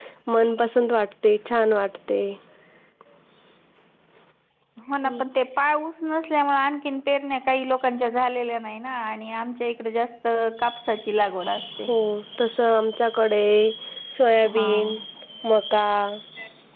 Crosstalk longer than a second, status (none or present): none